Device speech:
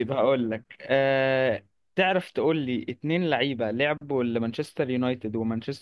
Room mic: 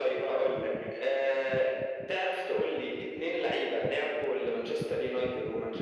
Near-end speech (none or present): none